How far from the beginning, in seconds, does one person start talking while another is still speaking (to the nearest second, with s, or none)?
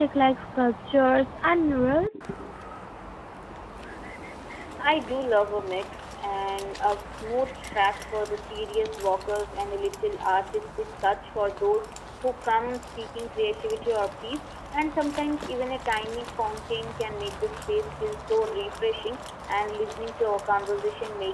none